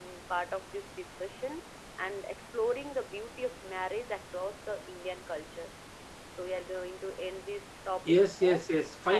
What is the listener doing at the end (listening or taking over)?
taking over